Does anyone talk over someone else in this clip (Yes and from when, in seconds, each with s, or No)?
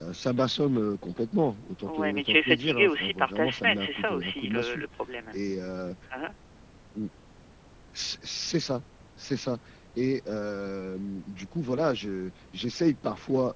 Yes, from 1.9 s